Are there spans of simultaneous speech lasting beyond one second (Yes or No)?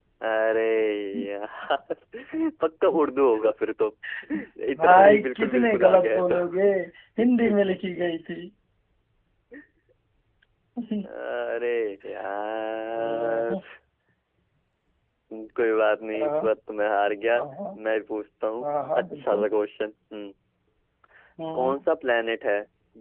Yes